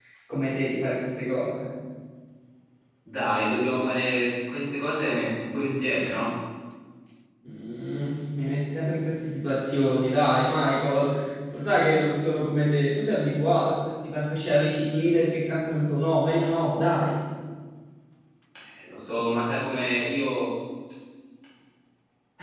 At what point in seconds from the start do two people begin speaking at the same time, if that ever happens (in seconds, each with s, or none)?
none